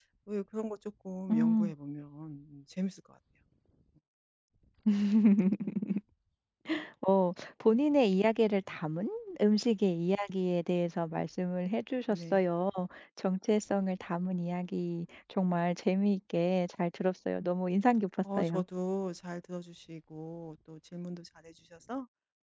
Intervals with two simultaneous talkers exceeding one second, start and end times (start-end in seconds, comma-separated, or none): none